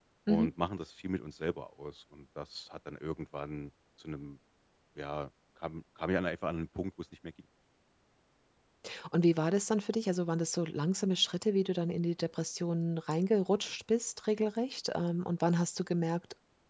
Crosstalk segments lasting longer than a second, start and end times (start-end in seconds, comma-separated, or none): none